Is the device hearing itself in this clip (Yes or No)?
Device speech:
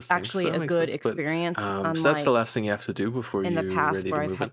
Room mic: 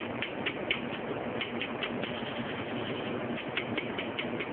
No